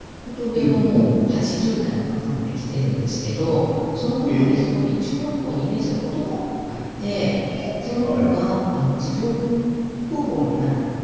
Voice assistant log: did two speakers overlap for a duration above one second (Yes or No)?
No